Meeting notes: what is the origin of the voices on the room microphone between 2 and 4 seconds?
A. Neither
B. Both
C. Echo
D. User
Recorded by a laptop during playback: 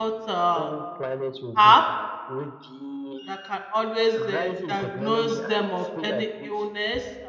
B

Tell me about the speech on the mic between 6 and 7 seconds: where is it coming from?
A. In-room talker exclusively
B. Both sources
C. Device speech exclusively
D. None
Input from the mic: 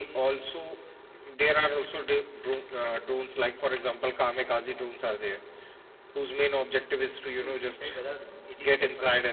C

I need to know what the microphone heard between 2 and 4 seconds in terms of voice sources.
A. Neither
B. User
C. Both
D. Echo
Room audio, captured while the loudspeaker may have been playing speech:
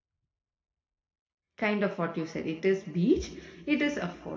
B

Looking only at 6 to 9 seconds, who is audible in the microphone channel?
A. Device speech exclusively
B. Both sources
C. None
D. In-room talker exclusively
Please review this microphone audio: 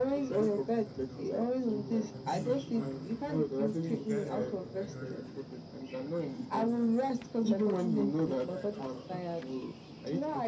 B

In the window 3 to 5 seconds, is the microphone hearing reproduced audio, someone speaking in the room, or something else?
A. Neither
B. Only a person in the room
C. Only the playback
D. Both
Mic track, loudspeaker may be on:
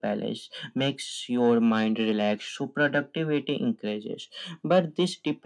C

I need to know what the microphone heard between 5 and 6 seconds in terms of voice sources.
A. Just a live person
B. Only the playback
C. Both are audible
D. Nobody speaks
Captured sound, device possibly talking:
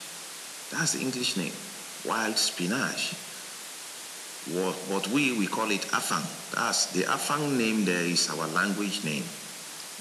B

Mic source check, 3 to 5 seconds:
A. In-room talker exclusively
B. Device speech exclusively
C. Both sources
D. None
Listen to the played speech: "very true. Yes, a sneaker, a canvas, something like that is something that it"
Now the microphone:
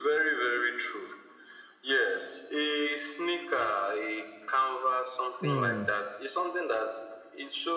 B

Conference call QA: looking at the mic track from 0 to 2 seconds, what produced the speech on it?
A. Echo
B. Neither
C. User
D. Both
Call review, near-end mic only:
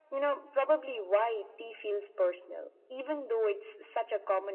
A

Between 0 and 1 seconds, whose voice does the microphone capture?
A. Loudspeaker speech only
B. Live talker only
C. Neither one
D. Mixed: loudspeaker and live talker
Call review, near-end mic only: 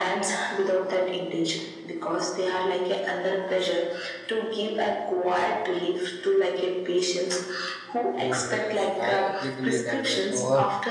A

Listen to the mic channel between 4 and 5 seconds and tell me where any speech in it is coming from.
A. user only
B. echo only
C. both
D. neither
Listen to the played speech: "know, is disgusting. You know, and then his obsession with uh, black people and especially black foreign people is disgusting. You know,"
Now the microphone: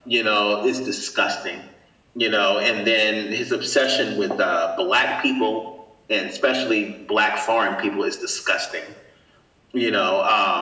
B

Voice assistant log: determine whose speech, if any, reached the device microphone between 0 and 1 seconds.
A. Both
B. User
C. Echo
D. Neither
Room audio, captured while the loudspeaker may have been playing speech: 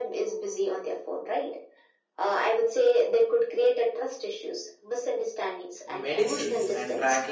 C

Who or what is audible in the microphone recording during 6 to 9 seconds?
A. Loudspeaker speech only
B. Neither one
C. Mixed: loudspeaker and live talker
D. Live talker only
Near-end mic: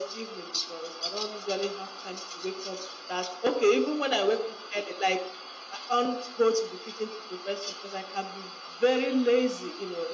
A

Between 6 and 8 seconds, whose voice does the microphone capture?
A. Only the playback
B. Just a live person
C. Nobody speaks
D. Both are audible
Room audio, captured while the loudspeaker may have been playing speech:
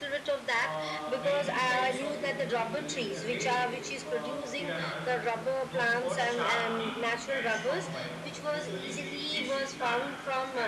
D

